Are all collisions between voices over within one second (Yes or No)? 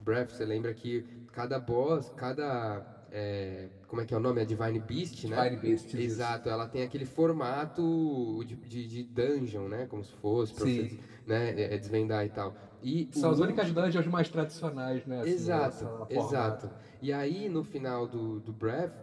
No